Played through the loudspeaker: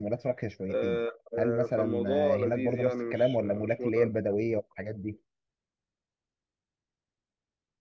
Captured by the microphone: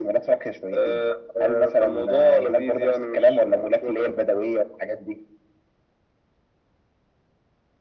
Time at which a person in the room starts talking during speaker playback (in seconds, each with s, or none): none